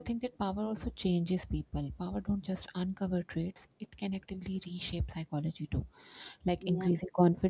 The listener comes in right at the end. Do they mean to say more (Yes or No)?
No